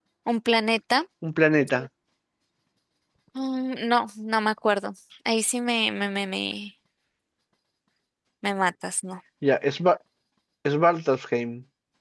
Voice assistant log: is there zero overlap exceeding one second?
Yes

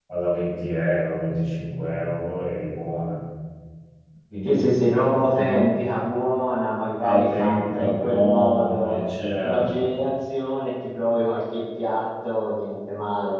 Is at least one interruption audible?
Yes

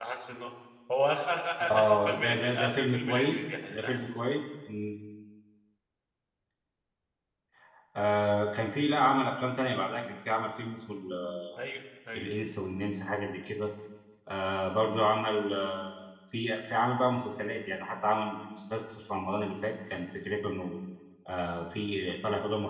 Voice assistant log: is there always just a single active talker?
No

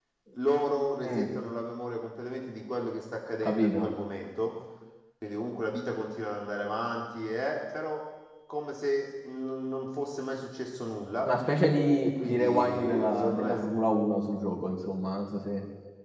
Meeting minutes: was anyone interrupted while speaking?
Yes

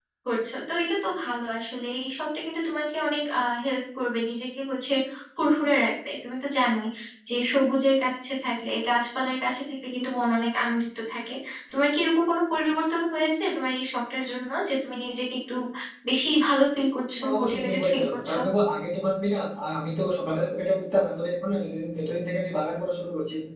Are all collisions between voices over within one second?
No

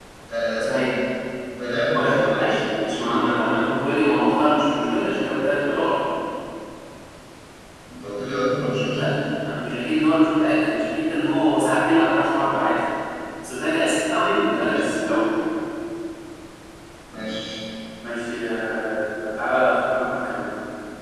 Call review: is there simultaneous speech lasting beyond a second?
Yes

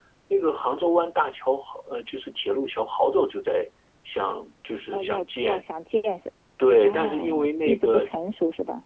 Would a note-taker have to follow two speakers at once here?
Yes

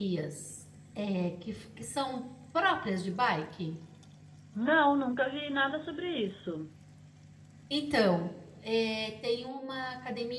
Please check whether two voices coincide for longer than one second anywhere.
No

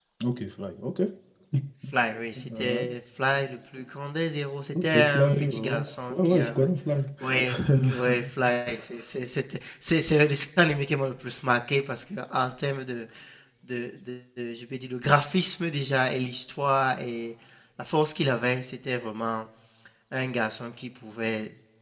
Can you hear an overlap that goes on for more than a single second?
Yes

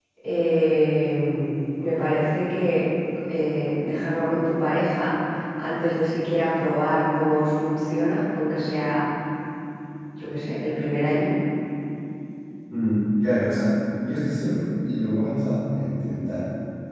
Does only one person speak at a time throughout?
Yes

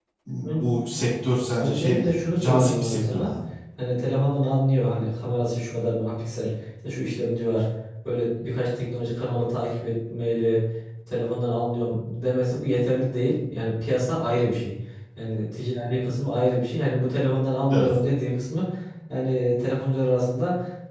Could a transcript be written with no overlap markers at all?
No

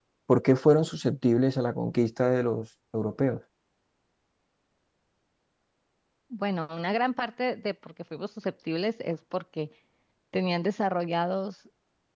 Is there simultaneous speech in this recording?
No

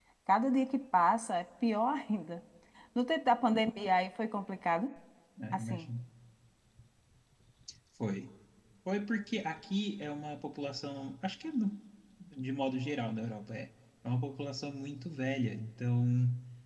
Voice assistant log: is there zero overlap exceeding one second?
Yes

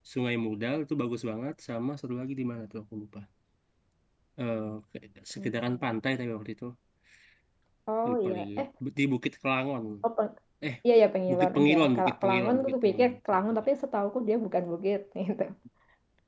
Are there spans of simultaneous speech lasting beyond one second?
Yes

